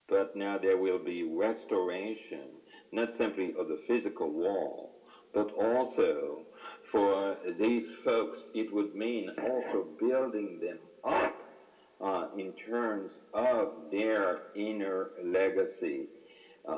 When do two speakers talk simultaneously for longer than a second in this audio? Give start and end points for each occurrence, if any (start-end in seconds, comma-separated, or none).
none